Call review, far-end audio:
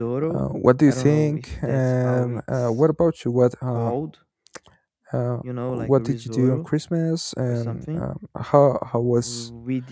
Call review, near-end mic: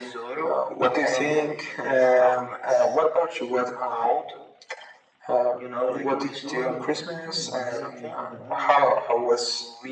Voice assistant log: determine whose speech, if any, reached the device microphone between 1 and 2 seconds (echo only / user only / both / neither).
echo only